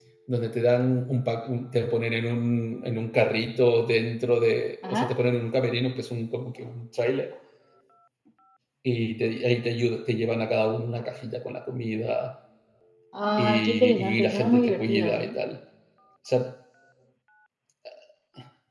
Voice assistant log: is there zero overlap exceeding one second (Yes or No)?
No